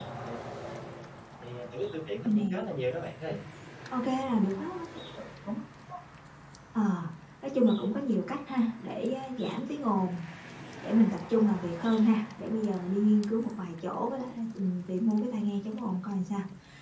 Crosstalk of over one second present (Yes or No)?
No